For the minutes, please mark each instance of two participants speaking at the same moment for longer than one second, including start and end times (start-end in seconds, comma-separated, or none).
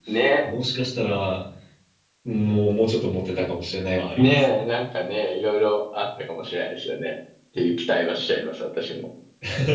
none